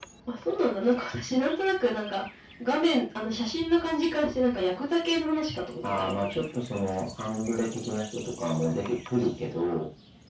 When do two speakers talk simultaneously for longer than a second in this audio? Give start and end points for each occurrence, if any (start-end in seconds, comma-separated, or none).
none